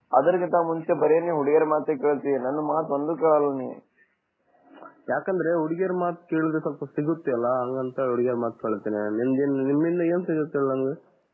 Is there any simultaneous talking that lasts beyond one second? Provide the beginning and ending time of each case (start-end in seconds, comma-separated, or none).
none